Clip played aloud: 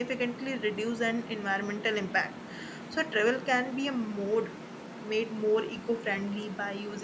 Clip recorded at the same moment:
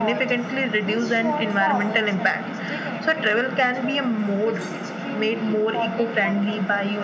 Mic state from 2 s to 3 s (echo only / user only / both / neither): both